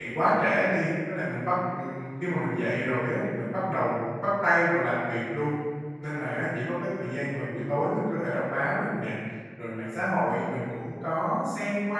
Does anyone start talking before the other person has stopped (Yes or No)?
No